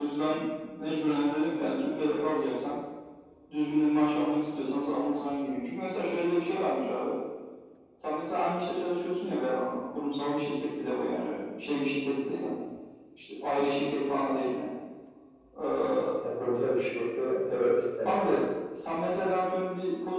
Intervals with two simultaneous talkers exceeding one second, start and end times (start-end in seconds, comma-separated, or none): none